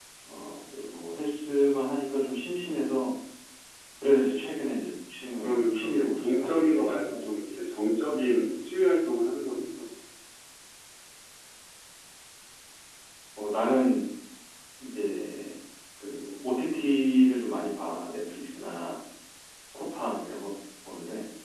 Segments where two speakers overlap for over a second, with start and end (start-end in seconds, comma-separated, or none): 5.4-7.3